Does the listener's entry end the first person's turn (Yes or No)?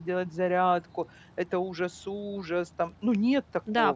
Yes